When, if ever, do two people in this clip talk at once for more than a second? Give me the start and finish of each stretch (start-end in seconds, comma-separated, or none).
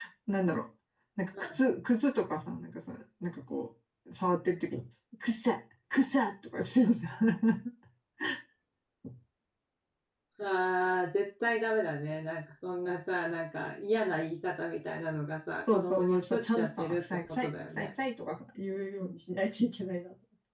15.6-17.9